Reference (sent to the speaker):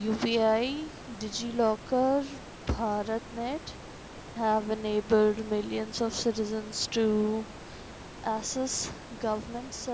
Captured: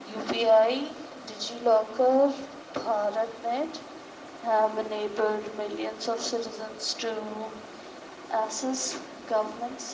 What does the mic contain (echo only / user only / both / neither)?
echo only